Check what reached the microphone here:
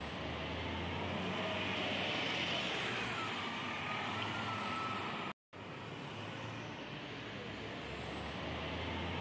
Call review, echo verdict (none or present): none